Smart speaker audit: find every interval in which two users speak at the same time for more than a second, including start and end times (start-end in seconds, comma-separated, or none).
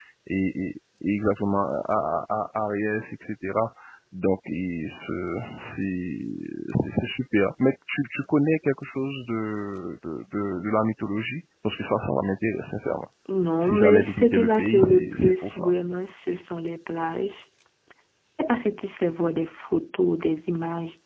13.6-15.7